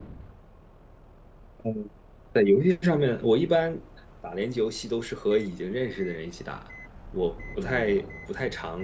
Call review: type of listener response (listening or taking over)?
listening